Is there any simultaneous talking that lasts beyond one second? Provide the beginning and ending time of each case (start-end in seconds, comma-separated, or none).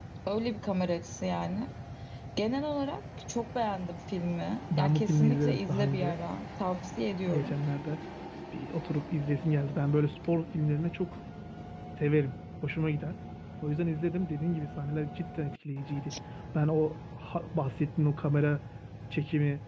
4.8-6.2